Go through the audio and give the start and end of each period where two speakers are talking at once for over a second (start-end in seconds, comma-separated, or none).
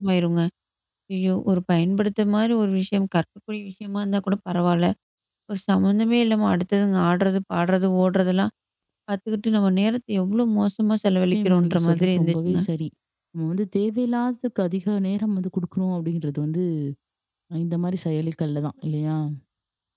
11.3-12.6